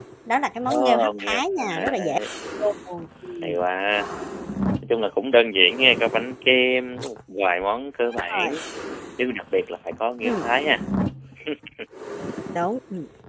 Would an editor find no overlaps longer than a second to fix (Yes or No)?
No